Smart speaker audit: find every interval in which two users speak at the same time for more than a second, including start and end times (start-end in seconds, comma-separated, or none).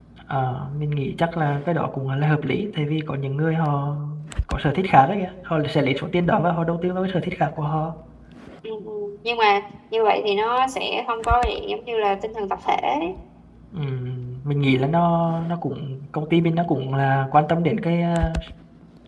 none